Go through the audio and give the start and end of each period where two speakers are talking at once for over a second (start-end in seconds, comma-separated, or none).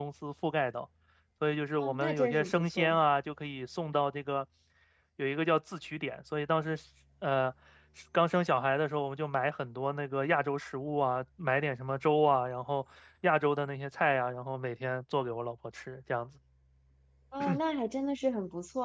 1.8-3.0